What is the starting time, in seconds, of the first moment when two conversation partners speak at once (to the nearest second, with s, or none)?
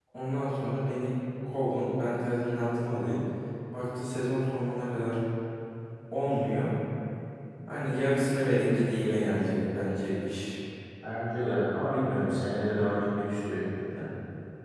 none